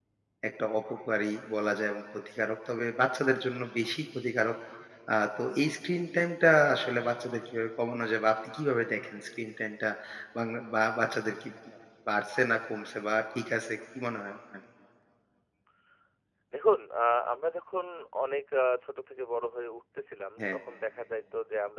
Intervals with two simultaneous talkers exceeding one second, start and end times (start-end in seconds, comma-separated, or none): none